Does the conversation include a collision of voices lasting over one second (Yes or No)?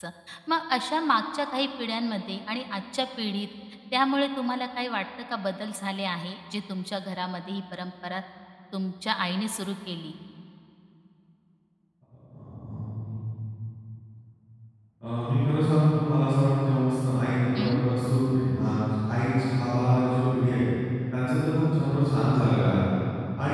No